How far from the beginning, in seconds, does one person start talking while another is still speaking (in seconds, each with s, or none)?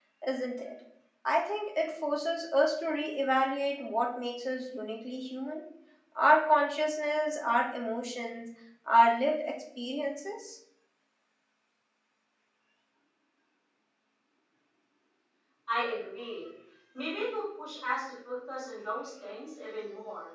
none